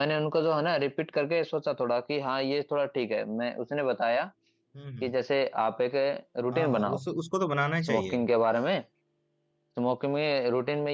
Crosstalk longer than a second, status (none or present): none